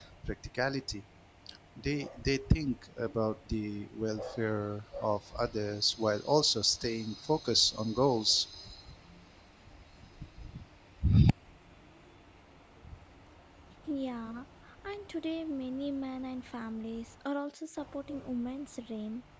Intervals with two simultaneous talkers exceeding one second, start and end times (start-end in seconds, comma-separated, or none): none